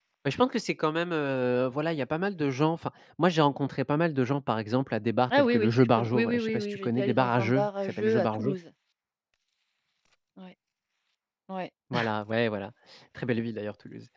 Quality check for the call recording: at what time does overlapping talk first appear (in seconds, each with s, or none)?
5.4 s